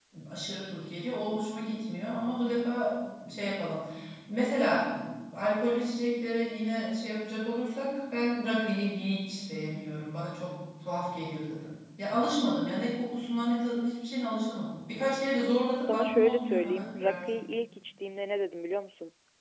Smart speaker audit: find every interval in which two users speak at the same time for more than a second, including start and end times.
15.9-17.4

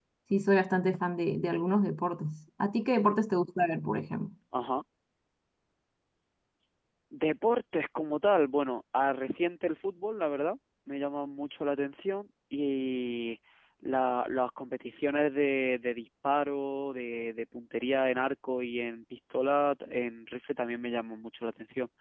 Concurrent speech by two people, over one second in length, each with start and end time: none

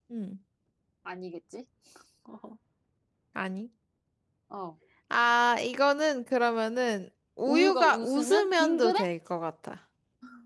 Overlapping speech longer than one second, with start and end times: 7.4-9.0

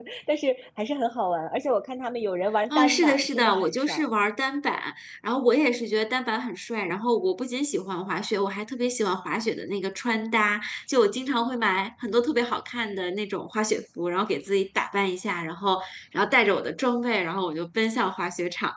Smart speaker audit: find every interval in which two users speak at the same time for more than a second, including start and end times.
2.8-4.0

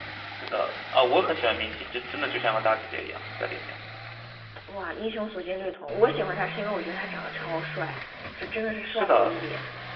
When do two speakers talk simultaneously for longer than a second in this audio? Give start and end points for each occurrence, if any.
none

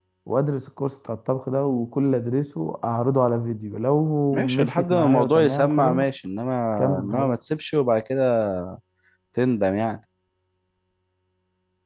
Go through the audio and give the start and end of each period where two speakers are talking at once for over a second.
4.3-6.1

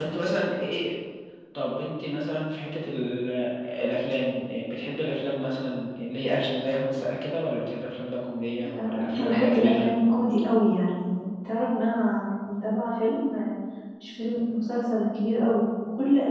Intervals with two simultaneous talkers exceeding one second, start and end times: 8.6-9.9

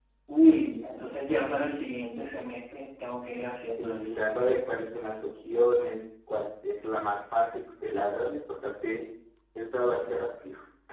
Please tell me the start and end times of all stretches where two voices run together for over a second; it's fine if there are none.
none

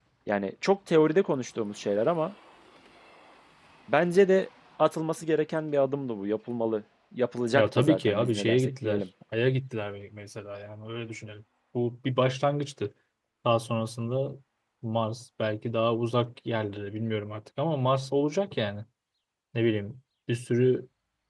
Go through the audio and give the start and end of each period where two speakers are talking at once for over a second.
7.5-9.0

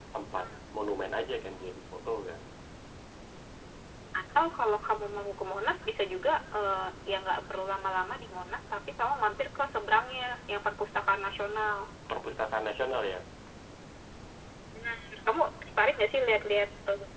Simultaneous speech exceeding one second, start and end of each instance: none

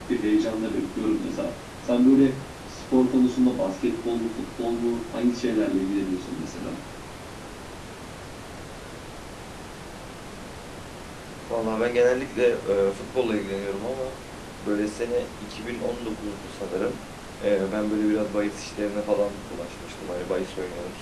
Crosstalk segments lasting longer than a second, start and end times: none

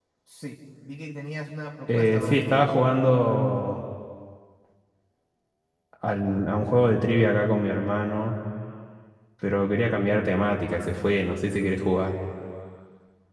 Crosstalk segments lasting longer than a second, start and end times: 1.9-3.2

